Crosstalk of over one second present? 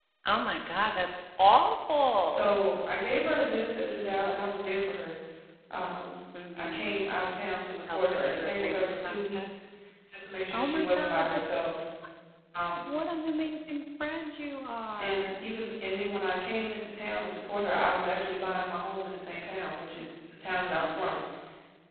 Yes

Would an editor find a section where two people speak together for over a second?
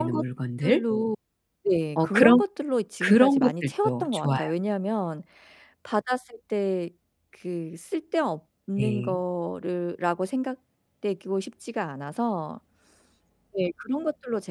Yes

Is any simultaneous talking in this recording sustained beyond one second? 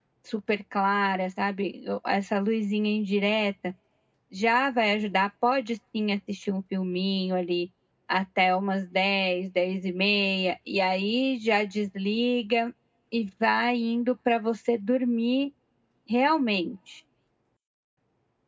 No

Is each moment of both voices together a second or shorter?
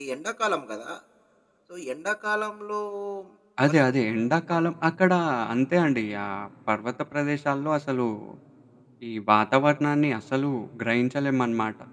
Yes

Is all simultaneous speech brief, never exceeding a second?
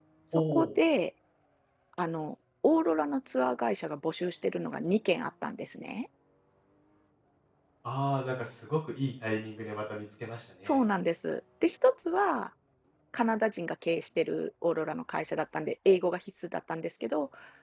Yes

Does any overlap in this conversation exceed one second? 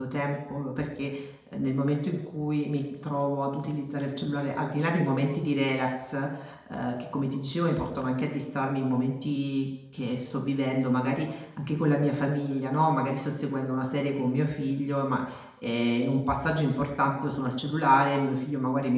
No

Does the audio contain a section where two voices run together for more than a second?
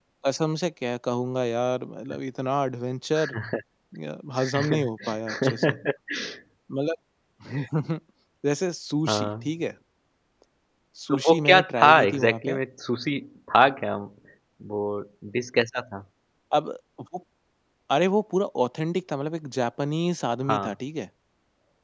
Yes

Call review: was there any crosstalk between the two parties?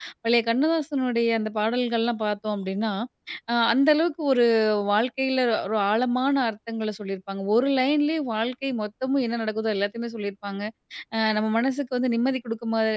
No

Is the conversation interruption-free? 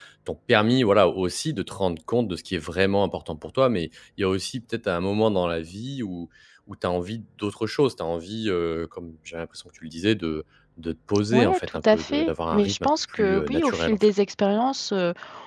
No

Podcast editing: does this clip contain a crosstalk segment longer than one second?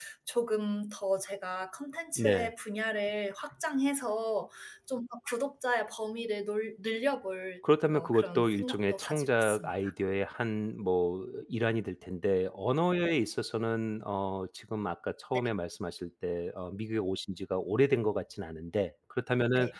Yes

